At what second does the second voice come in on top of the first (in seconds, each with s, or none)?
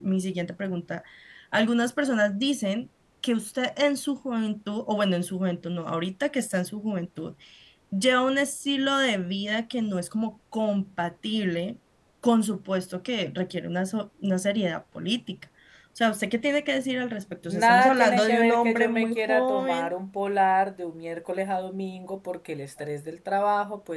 17.5 s